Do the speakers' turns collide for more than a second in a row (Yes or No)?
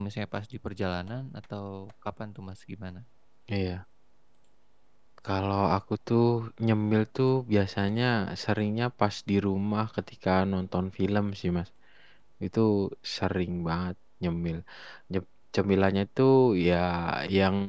No